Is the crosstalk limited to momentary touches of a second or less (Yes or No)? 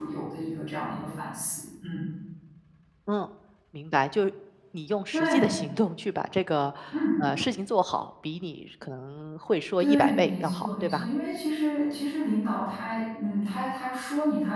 No